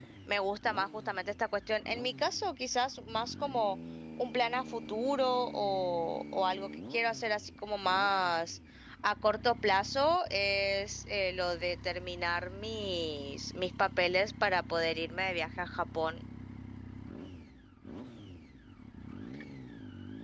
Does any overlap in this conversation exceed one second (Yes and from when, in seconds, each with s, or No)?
No